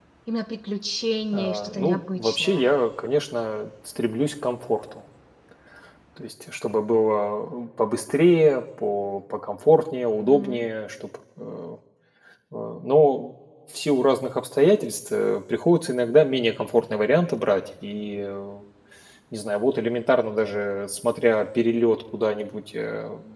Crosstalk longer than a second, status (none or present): present